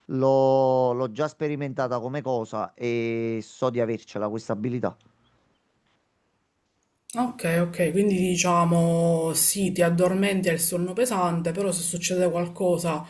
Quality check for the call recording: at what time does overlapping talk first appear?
none

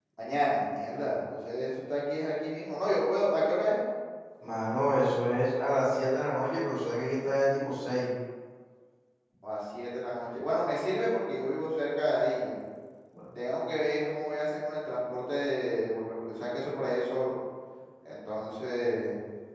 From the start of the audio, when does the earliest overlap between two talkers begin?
none

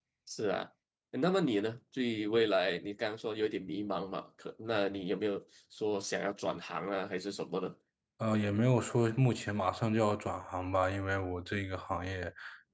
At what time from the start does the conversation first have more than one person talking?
none

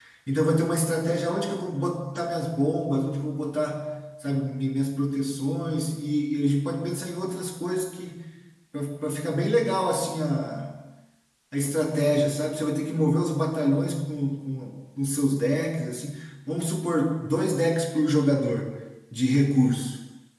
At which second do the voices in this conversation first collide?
none

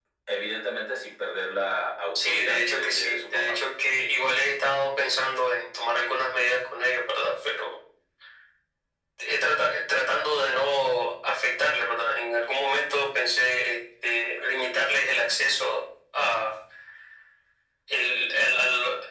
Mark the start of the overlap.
2 s

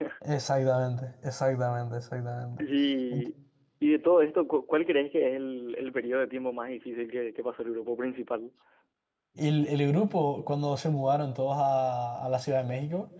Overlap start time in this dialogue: none

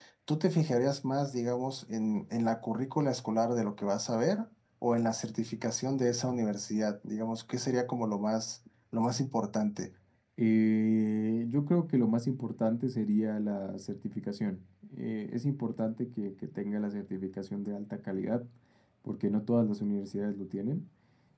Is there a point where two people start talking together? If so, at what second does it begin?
none

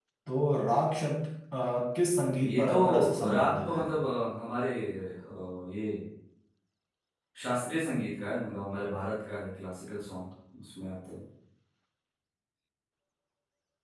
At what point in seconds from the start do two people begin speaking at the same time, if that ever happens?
2 s

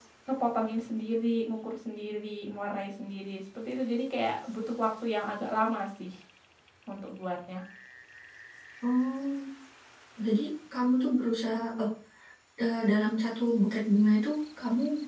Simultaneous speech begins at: none

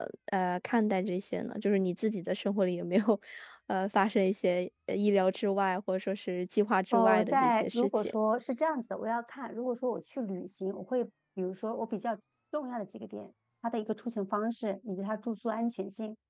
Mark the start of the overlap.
7 s

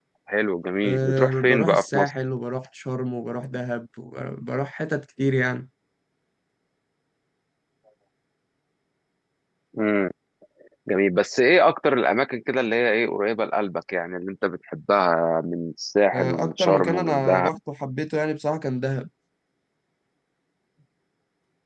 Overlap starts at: 1 s

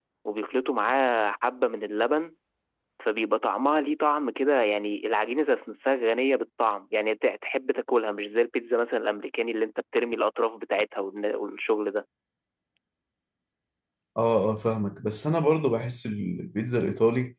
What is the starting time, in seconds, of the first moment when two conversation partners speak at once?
none

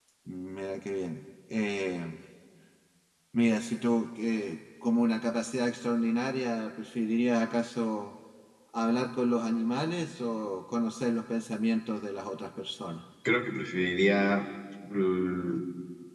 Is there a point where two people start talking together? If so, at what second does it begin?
none

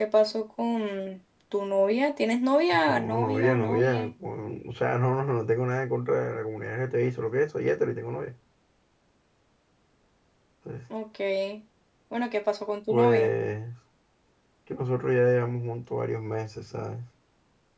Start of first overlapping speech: 3 s

